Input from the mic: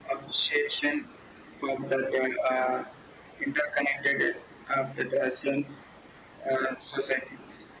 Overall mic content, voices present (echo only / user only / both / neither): echo only